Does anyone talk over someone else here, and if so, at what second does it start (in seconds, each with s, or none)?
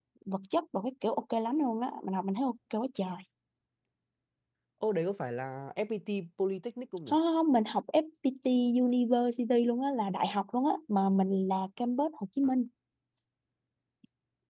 none